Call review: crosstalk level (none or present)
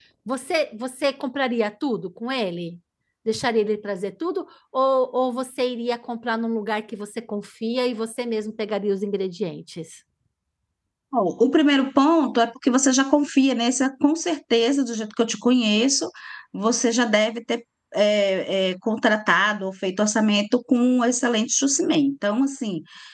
none